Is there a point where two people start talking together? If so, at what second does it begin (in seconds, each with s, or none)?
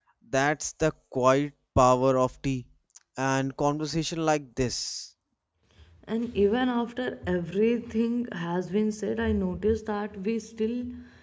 none